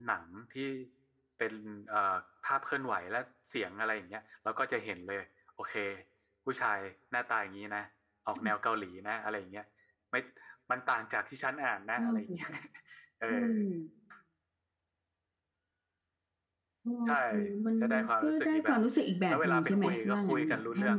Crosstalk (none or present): present